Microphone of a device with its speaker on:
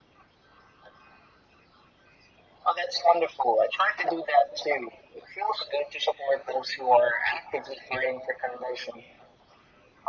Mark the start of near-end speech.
none

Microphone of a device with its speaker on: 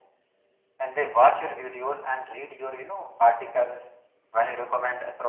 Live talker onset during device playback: none

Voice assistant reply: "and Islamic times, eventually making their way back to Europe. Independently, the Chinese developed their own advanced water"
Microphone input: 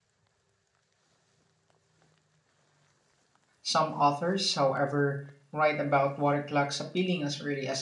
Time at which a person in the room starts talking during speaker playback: 3.6 s

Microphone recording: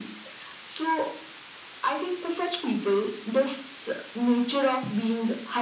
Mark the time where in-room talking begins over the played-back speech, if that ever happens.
none

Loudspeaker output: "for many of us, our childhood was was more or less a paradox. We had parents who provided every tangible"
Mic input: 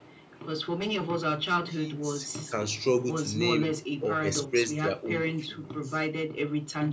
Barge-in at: 1.7 s

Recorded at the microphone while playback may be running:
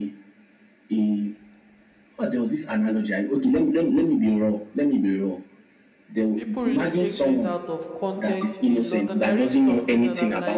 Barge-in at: 6.3 s

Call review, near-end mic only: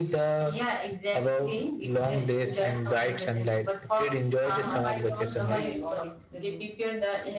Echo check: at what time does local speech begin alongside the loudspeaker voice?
4.5 s

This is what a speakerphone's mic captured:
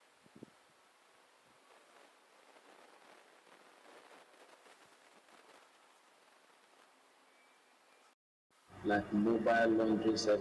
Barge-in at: 8.8 s

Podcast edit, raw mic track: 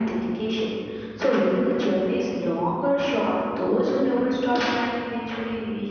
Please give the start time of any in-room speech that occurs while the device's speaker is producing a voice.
none

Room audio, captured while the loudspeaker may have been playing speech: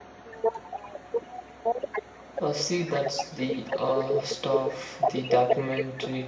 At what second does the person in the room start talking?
2.4 s

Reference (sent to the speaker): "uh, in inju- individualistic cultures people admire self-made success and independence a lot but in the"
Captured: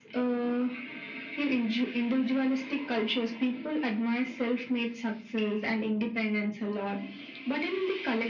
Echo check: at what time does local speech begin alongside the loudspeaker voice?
none

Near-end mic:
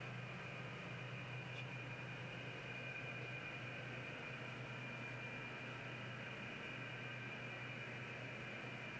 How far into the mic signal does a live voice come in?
none

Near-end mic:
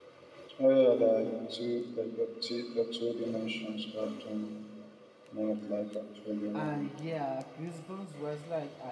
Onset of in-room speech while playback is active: 6.5 s

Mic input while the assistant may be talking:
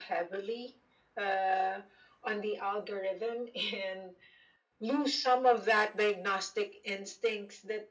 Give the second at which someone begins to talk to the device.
none

